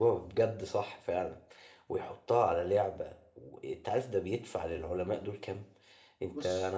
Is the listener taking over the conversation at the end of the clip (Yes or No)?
No